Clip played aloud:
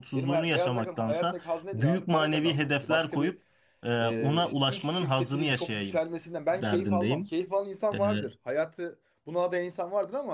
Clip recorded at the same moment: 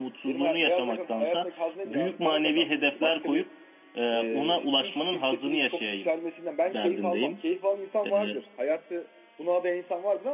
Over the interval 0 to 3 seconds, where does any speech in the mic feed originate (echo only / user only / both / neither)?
echo only